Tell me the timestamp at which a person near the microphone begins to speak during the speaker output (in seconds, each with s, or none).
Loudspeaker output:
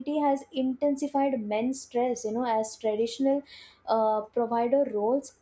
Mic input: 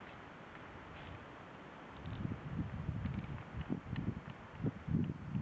none